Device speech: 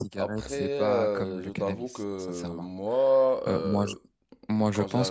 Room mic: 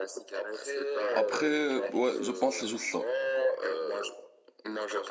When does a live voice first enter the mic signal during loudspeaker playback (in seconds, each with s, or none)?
1.1 s